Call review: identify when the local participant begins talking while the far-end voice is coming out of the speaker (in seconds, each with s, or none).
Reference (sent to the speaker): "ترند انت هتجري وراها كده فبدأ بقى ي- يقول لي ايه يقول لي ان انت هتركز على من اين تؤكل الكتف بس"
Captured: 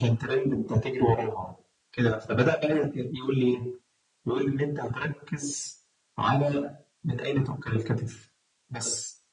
none